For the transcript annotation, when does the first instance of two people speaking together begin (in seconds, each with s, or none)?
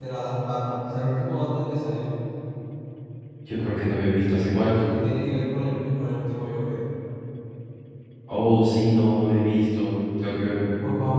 none